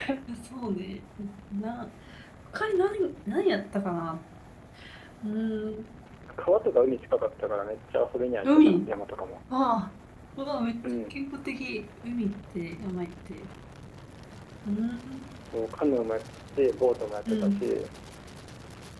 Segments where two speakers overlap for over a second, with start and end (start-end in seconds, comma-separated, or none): none